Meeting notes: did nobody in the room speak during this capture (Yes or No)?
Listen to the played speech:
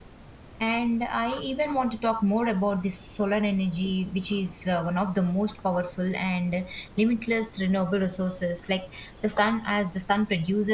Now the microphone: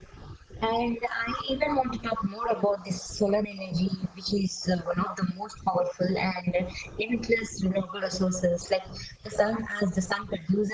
Yes